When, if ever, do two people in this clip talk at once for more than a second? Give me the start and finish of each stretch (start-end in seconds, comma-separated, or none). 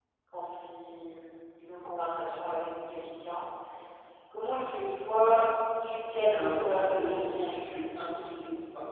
6.2-7.8